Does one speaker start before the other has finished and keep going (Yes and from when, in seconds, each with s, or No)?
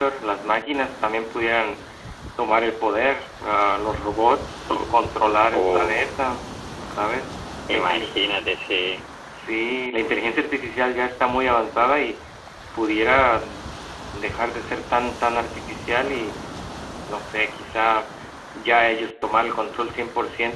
Yes, from 4.7 s